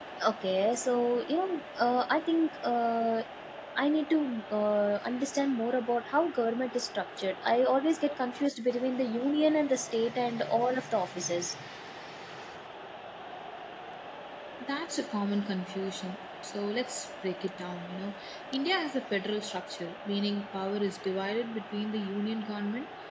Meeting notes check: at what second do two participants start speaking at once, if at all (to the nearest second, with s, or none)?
none